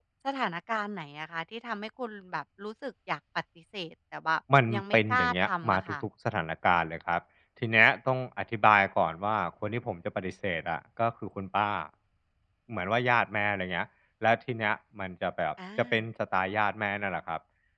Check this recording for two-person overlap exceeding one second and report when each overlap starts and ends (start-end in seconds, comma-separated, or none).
4.7-6.0